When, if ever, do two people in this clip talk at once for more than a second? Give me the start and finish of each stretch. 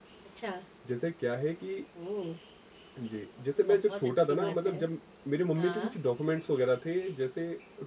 3.6-4.8

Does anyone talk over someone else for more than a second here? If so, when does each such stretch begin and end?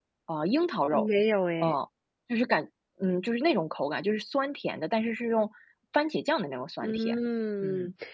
none

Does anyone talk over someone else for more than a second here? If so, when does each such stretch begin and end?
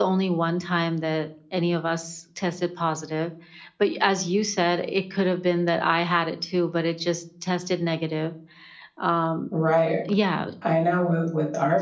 none

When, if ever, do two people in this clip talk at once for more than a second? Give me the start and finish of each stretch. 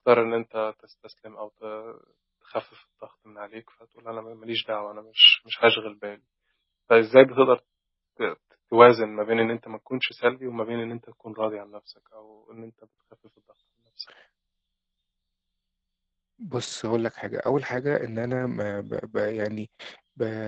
none

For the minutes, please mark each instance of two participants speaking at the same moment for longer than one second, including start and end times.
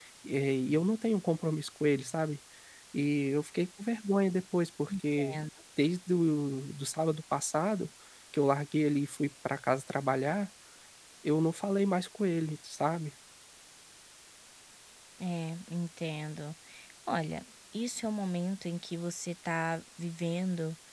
none

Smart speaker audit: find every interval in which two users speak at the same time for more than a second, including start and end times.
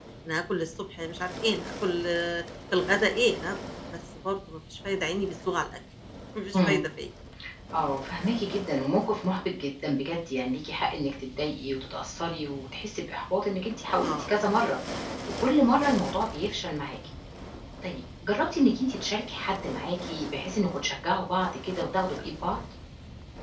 none

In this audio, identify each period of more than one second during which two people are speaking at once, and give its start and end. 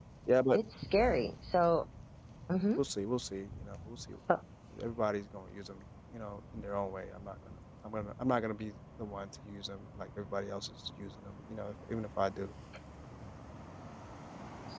none

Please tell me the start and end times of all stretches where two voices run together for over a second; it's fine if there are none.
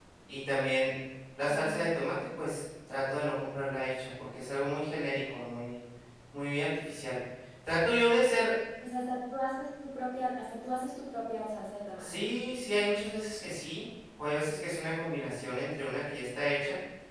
none

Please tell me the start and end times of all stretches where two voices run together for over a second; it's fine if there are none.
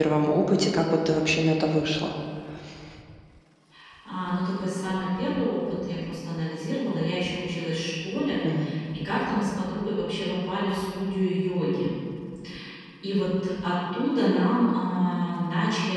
none

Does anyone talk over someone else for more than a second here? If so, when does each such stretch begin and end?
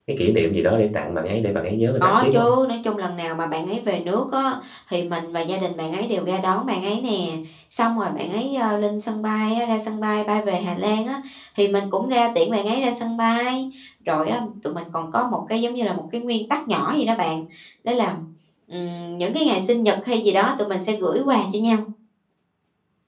none

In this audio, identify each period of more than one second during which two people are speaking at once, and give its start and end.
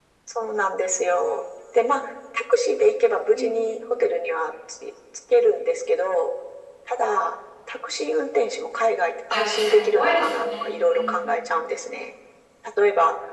9.3-11.3

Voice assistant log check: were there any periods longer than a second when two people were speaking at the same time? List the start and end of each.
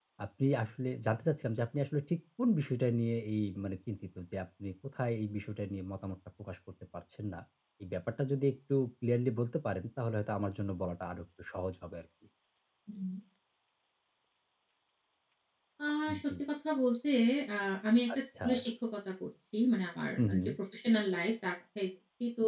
none

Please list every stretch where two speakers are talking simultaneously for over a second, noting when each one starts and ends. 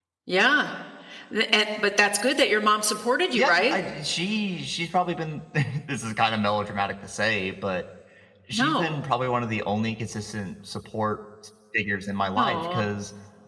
none

